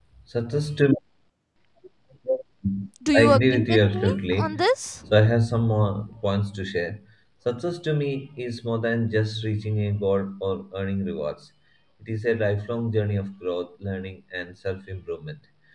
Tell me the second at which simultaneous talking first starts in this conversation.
3.2 s

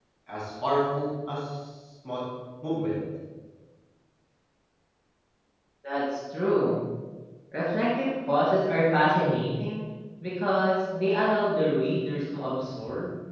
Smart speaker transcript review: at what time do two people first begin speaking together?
none

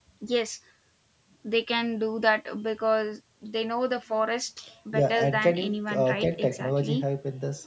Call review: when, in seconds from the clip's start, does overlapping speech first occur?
4.9 s

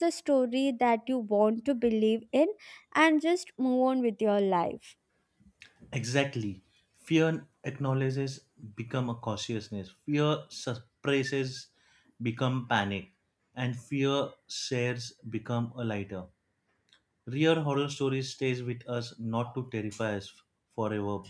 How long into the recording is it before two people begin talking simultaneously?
none

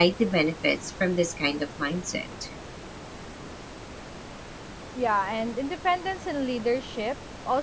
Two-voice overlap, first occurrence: none

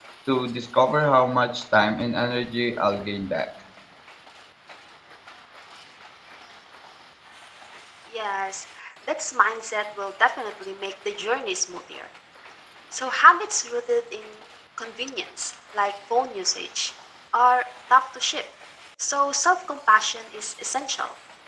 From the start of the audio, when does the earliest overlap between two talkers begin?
none

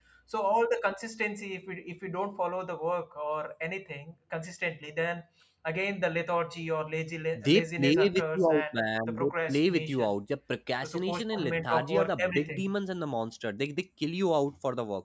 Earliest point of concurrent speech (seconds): 7.4 s

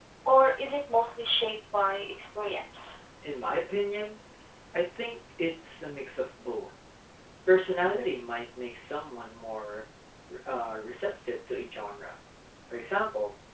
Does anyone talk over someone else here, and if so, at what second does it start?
none

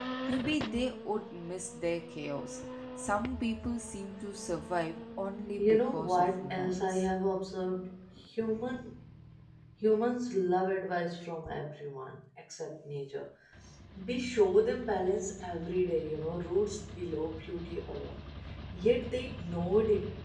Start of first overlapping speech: 5.6 s

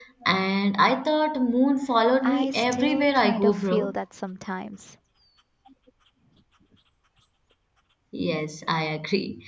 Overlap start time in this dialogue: 2.2 s

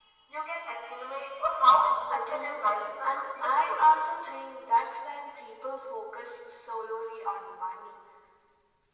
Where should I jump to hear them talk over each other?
2.1 s

